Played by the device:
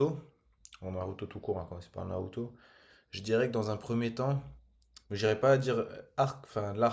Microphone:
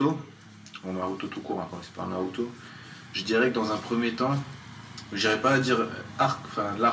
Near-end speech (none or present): none